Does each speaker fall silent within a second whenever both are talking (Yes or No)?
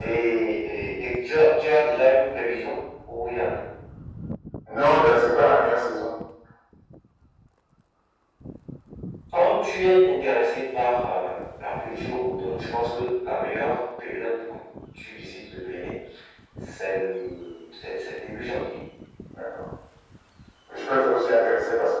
Yes